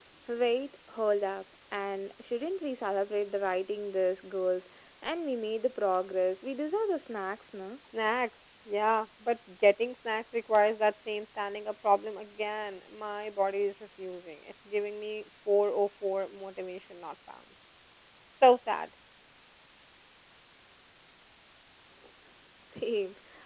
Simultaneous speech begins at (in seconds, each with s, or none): none